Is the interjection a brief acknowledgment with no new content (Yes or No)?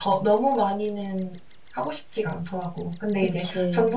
Yes